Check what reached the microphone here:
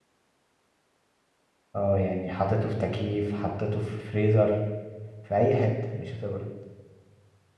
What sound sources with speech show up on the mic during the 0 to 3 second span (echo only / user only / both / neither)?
user only